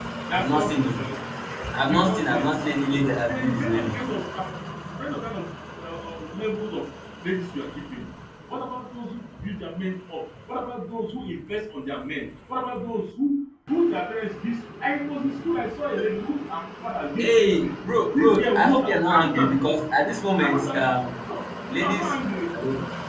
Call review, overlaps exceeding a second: present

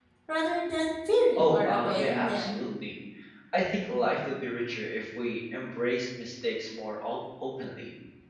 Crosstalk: present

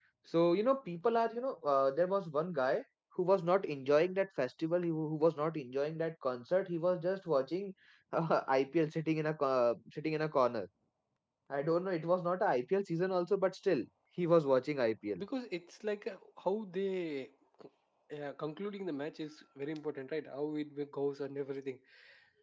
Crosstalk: none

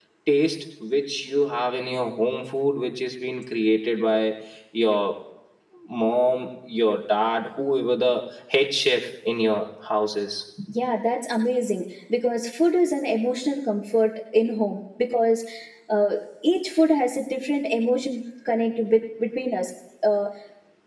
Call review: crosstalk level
none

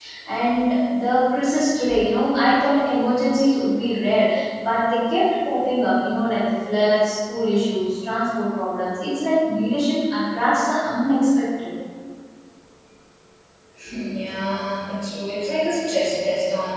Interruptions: none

